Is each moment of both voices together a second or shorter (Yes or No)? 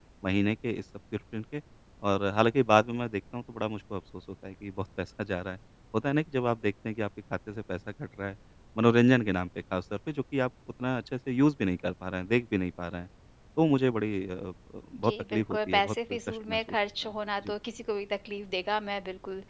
No